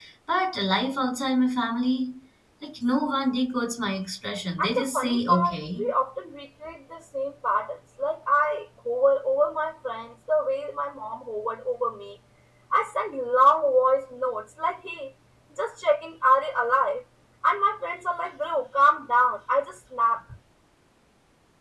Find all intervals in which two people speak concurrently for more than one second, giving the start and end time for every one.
4.6-5.9

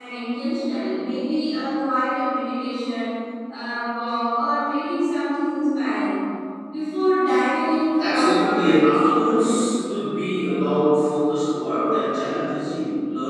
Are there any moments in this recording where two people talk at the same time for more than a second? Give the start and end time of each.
8.0-9.7

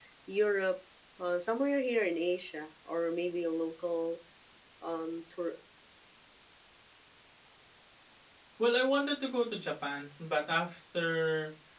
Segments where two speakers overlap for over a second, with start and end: none

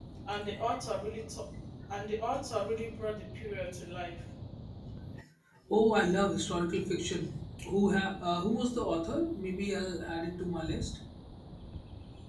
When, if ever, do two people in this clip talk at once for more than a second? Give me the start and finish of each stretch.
none

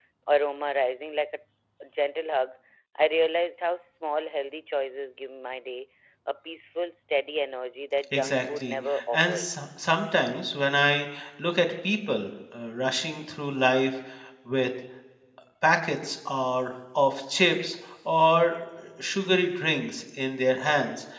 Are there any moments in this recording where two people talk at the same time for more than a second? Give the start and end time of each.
8.1-9.5

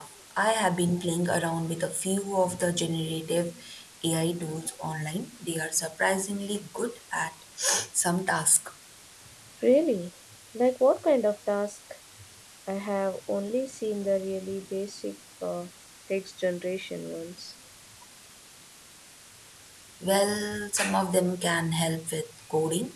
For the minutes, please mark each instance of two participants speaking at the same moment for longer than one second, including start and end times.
none

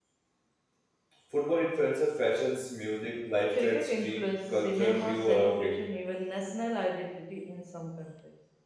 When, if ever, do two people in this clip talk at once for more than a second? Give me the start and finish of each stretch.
3.5-5.8

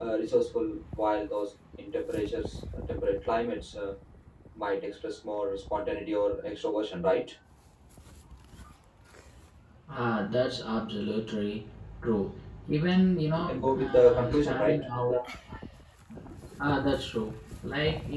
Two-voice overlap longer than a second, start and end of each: 13.5-14.8

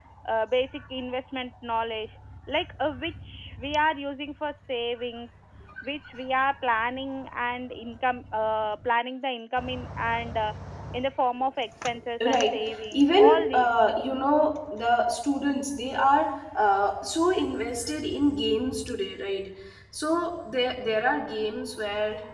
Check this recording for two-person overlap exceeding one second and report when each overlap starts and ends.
12.3-14.0

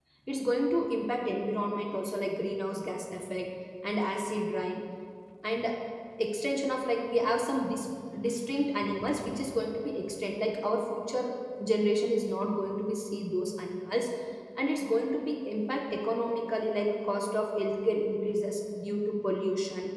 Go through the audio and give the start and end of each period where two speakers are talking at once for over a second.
none

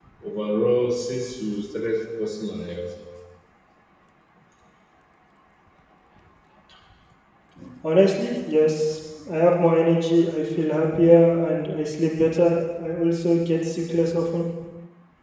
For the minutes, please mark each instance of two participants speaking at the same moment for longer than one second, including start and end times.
none

